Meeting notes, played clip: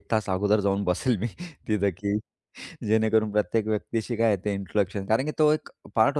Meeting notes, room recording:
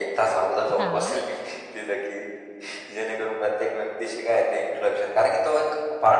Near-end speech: present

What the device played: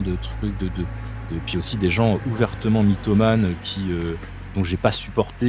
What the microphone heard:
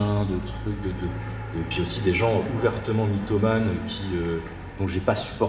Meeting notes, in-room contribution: none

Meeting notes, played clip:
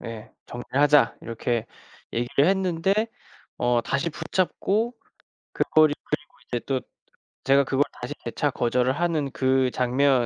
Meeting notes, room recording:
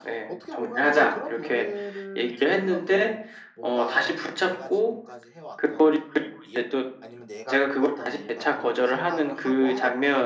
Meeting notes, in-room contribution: present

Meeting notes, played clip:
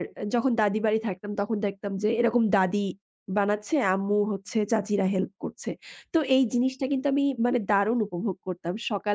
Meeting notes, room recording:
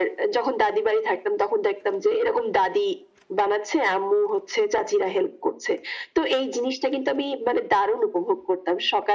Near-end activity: none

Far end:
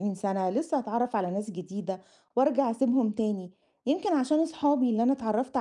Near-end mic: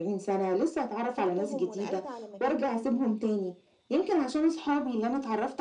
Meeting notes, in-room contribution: present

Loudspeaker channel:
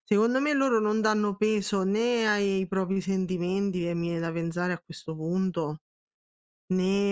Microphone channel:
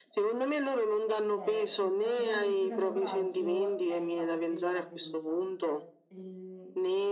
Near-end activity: present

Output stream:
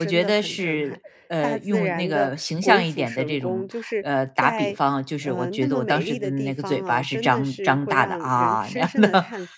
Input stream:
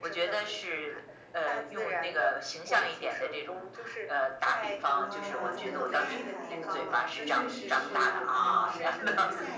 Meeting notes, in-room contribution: present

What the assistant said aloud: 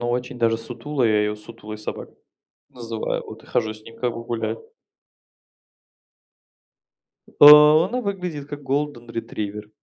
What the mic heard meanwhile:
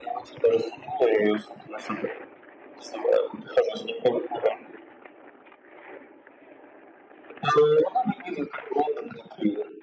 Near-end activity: none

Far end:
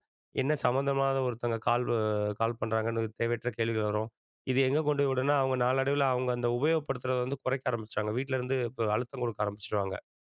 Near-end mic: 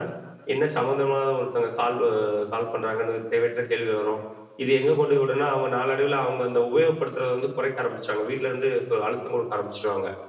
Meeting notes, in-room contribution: none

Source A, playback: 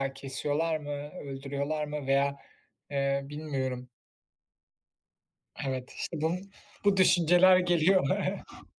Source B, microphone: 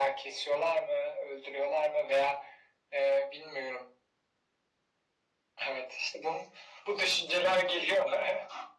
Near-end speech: none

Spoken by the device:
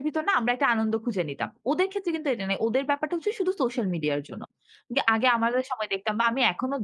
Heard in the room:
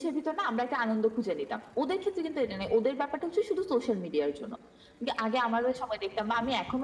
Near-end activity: none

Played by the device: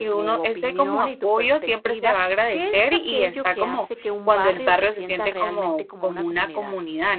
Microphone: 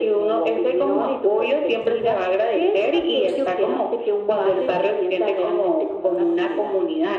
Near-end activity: none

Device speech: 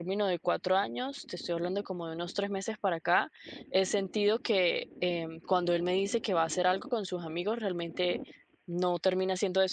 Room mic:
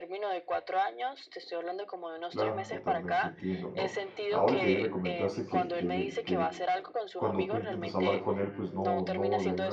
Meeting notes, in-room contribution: present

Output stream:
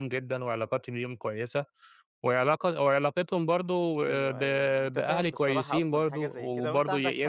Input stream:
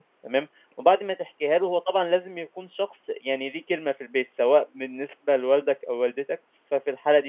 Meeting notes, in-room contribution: present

